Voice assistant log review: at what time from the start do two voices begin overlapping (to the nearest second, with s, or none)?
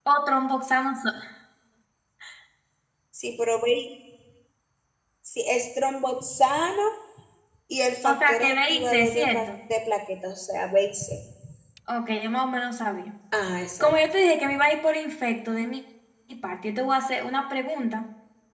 8 s